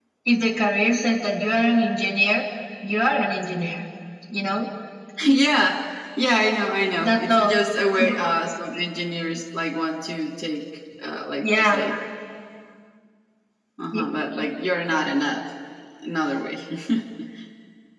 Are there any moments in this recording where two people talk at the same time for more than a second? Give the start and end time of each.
none

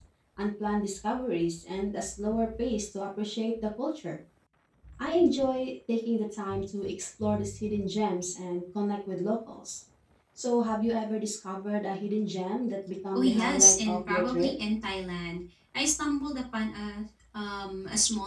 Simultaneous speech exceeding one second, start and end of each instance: 13.2-14.5

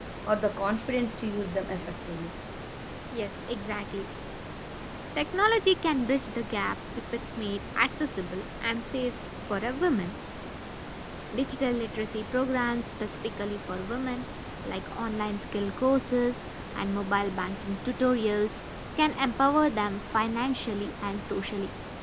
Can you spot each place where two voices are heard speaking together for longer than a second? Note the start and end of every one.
none

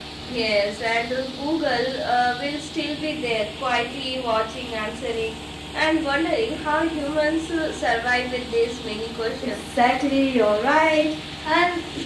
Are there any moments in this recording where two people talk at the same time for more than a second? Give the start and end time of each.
none

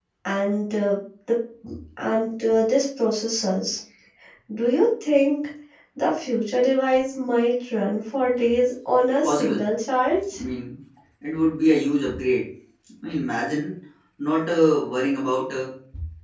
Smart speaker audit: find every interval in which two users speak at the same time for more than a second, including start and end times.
none

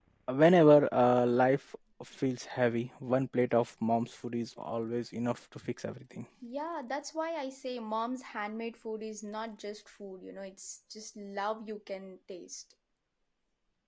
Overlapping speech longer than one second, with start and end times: none

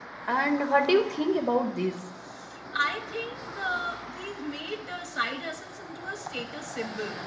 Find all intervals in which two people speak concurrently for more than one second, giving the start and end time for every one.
none

